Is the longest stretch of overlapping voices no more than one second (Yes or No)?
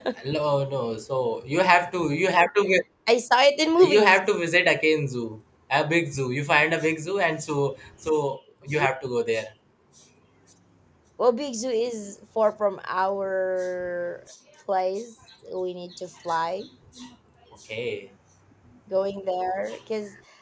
Yes